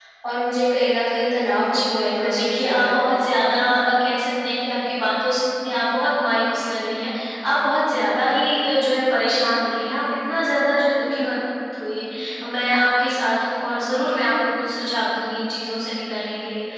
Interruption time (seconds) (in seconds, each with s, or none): 1.6 s